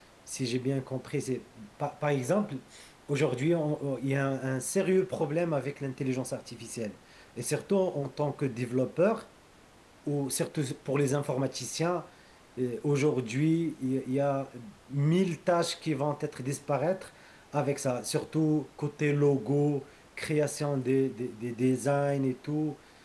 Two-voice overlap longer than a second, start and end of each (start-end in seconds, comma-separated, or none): none